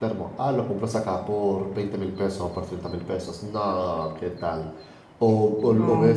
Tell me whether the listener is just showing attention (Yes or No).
Yes